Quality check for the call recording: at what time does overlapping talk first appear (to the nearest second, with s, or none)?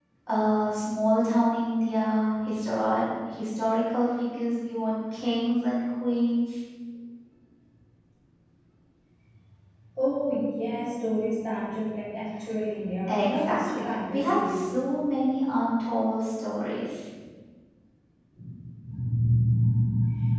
13 s